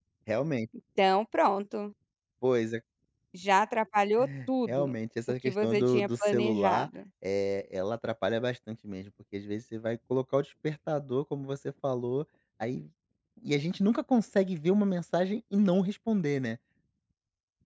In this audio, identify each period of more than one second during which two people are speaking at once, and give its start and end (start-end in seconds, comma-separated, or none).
5.5-6.9